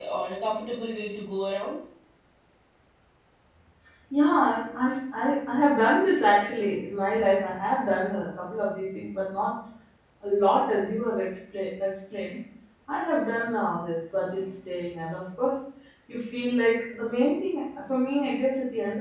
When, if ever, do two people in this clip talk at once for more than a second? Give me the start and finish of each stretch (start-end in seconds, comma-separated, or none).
none